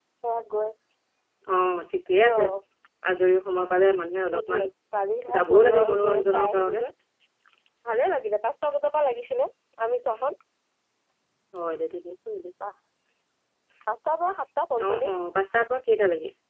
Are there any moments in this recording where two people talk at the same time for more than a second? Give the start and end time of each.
5.4-6.9

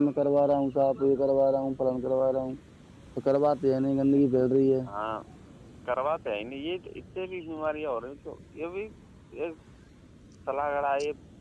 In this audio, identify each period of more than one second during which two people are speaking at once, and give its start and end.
none

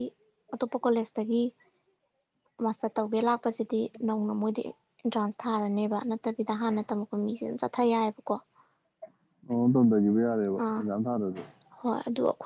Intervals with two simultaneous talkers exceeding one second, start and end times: none

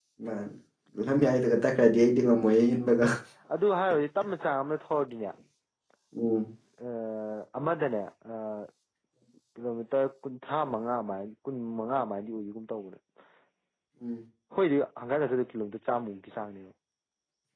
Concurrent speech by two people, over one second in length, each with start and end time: none

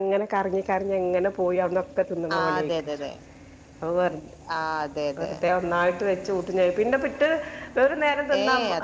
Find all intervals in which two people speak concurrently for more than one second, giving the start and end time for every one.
none

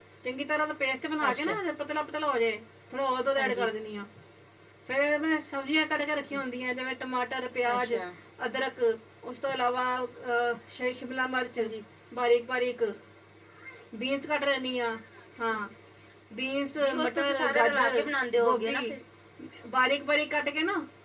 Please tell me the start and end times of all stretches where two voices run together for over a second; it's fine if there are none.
16.8-18.0

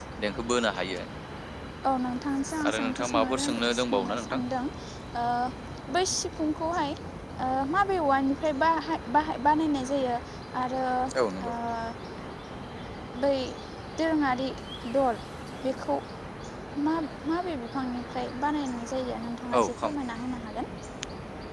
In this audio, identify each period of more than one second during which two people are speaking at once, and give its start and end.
2.7-4.4

